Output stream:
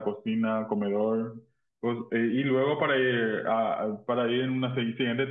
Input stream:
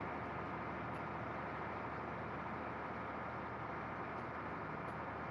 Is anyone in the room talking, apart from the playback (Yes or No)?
No